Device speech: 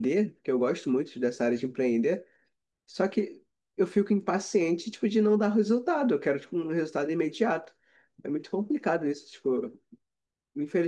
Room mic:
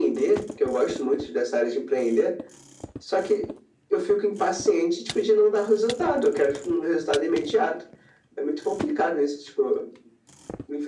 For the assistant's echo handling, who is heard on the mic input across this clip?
echo only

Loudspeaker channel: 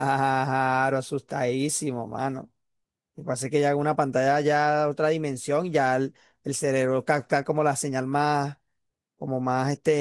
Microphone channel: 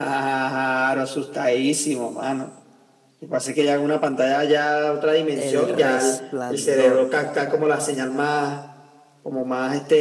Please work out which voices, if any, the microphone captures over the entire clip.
both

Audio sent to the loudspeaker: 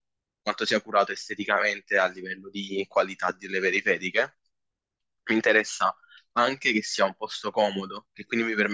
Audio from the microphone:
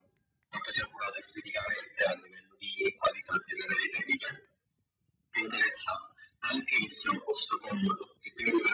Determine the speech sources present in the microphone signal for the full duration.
echo only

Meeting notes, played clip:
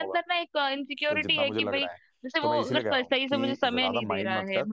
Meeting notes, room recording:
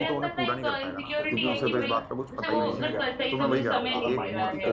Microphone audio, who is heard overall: both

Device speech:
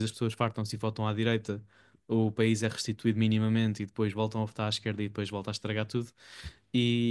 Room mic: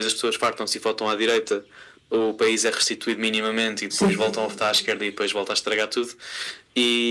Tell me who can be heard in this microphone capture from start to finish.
both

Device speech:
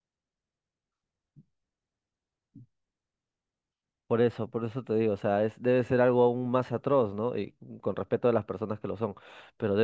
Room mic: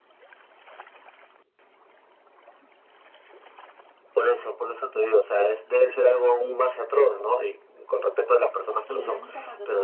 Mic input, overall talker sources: both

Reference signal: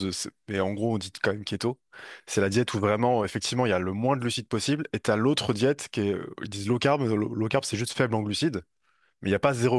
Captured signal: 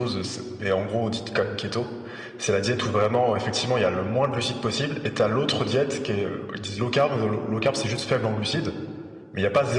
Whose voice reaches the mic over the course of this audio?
echo only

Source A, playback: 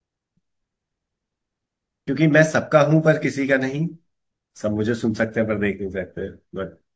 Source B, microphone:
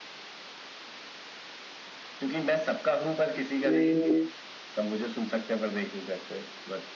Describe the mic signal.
both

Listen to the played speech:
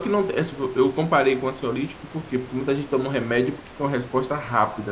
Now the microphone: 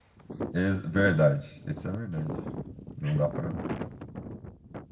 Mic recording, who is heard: user only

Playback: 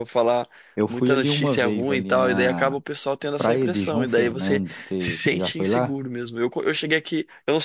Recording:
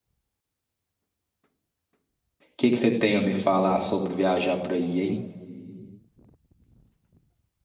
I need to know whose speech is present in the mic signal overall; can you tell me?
user only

